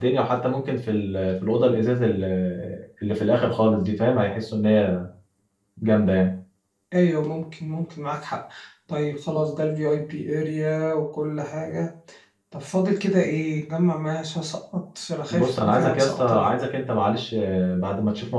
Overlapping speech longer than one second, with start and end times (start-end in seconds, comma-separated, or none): 15.3-16.5